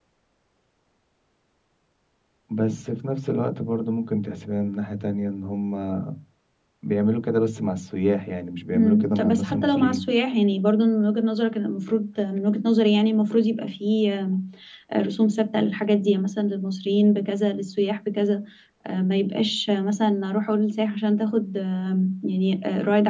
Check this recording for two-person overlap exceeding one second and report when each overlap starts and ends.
8.8-10.0

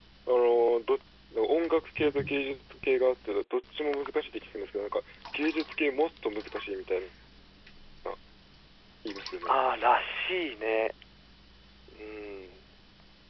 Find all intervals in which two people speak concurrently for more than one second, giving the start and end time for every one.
none

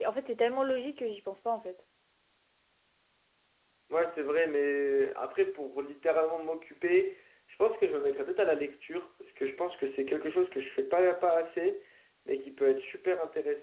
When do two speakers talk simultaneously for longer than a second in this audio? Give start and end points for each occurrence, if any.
none

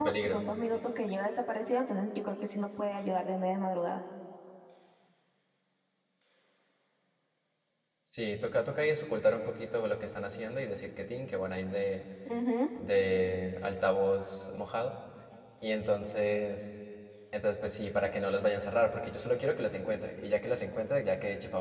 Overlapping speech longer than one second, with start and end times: none

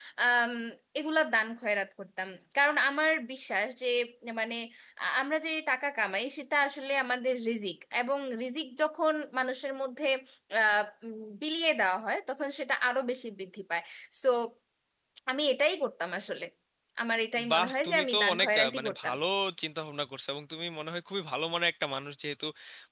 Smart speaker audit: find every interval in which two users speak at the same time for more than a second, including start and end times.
17.5-19.1

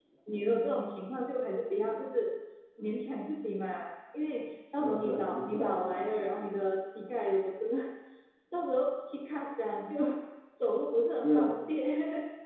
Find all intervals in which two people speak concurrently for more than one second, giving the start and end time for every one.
4.7-6.2

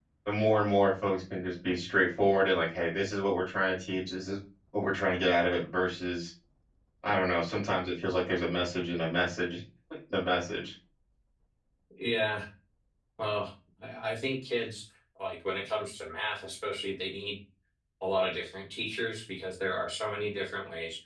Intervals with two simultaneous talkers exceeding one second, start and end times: none

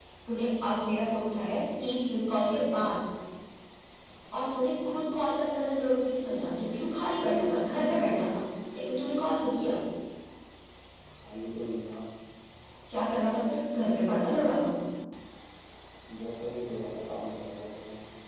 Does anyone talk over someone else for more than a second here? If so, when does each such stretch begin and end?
none

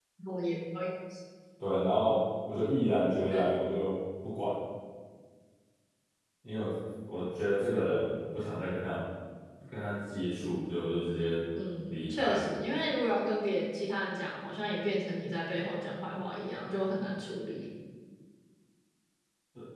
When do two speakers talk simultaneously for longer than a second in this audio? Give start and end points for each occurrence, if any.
none

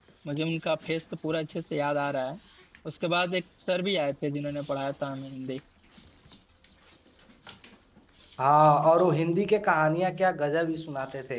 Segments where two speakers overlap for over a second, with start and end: none

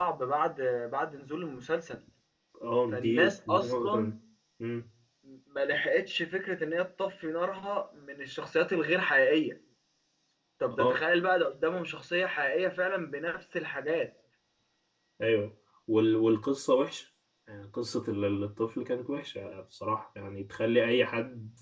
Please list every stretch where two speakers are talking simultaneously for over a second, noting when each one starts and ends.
2.9-4.1

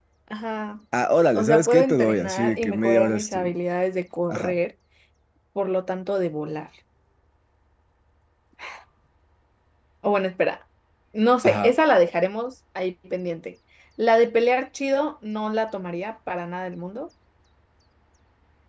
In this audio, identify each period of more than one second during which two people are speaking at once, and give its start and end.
1.4-3.5

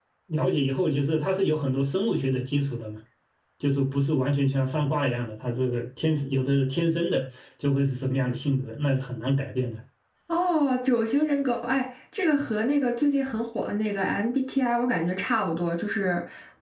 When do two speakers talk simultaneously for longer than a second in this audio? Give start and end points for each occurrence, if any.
none

